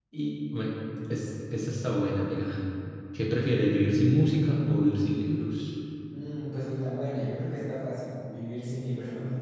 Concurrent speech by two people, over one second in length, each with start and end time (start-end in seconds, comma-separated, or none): none